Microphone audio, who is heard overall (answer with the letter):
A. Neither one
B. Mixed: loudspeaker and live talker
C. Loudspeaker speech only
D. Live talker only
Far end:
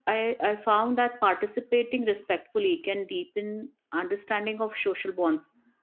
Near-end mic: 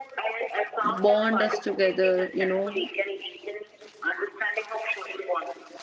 B